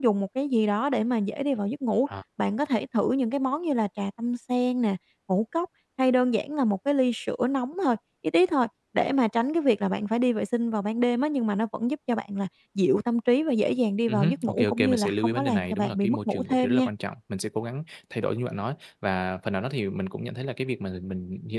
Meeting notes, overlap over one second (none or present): present